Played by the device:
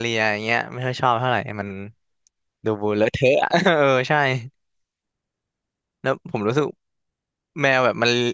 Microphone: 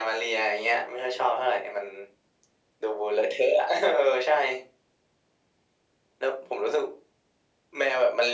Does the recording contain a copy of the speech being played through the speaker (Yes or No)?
Yes